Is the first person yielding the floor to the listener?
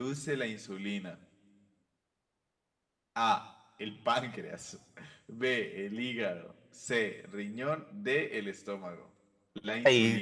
Yes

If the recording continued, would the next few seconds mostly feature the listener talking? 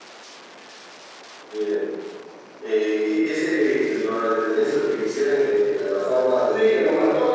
Yes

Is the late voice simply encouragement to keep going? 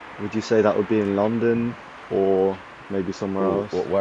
No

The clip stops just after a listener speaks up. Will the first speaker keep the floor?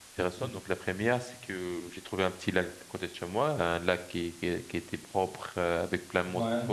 Yes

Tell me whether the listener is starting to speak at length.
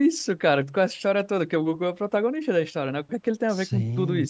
Yes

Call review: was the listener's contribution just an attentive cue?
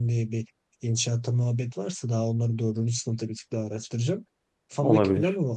Yes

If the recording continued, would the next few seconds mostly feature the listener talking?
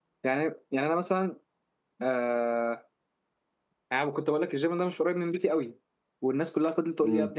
No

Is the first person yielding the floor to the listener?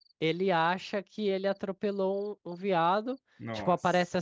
No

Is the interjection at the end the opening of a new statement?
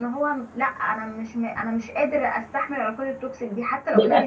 No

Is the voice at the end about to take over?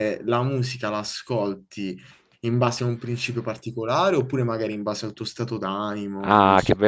Yes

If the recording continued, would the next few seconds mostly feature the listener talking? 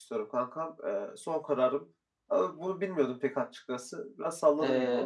Yes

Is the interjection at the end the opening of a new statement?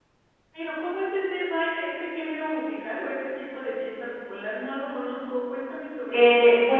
Yes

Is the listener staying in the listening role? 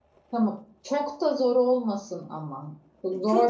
No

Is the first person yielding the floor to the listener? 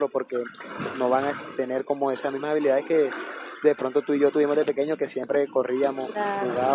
No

